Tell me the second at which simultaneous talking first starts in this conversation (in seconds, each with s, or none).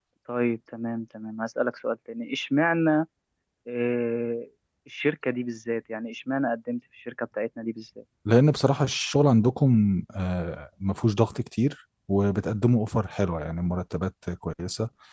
none